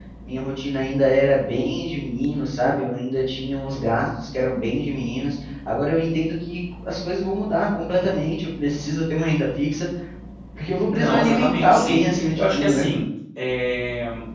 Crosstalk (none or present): present